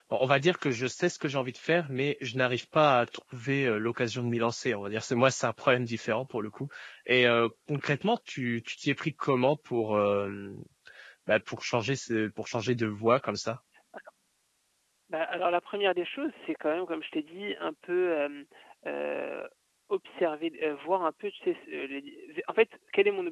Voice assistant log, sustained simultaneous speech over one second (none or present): none